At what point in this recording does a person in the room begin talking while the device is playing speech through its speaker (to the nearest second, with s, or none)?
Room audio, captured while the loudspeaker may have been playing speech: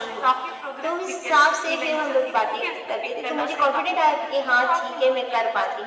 none